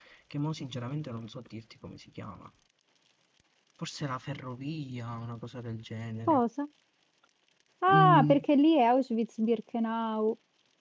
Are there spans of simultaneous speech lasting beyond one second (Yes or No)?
No